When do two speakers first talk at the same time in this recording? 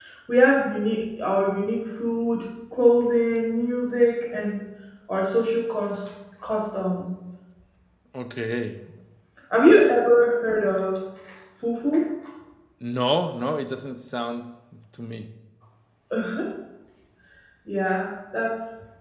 none

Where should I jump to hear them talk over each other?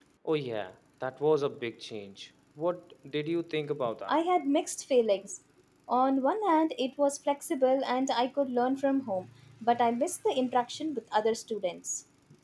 none

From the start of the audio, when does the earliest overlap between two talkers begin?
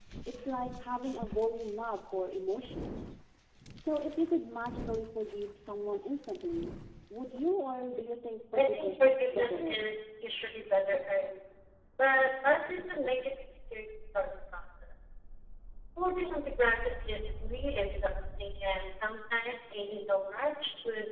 9 s

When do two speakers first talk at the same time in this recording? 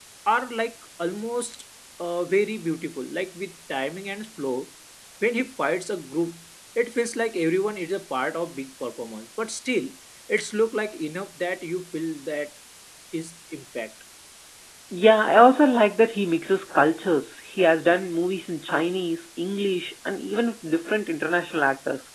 none

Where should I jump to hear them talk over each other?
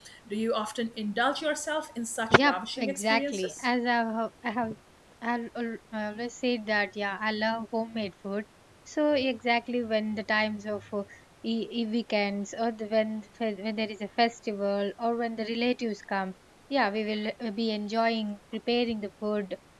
2 s

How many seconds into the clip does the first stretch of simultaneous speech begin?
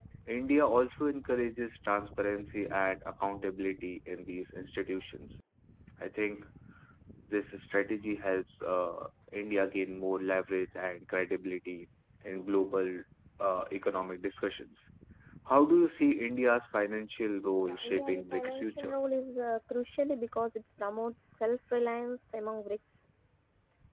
18 s

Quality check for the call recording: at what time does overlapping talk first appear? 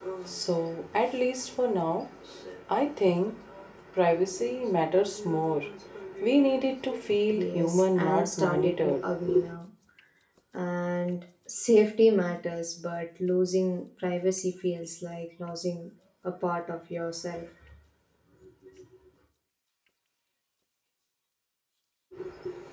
7 s

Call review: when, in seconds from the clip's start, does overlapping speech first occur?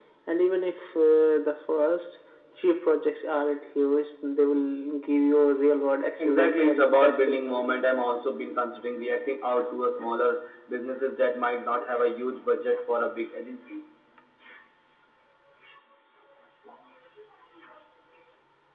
6 s

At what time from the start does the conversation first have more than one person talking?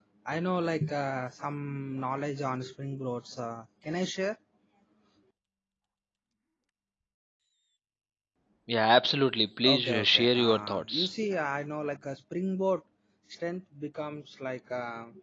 10 s

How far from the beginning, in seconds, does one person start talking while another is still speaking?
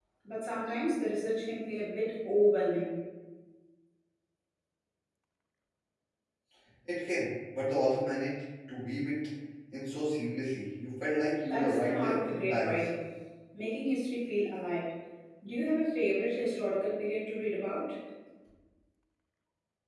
11 s

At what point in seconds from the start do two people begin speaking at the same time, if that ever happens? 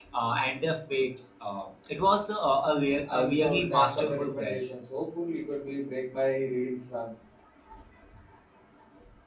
3 s

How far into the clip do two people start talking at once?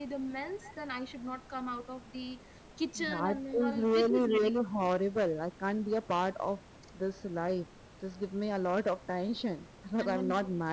3 s

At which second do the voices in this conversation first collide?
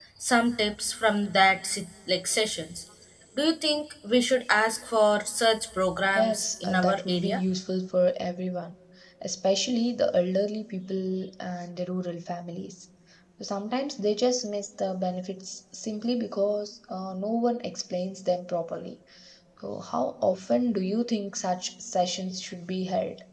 6 s

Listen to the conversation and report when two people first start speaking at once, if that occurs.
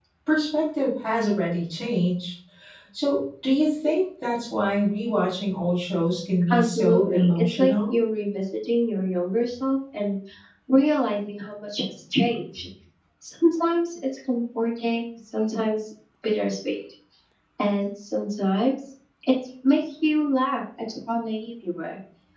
6 s

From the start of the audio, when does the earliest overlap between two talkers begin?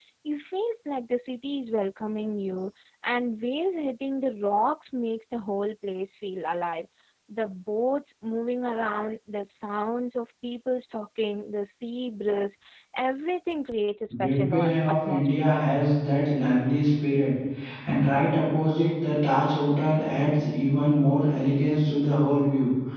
14 s

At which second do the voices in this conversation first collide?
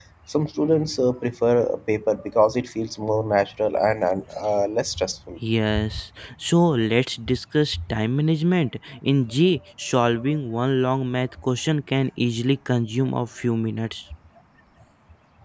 none

